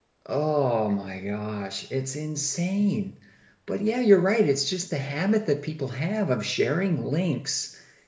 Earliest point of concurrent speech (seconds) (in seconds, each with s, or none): none